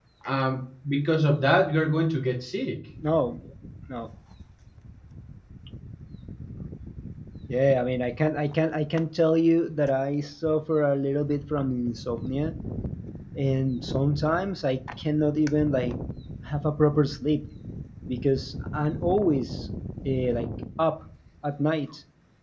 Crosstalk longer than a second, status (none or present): none